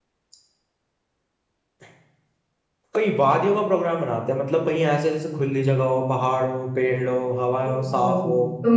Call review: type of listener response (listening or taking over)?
taking over